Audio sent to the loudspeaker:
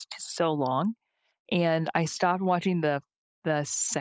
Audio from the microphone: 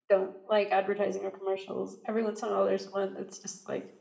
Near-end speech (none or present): present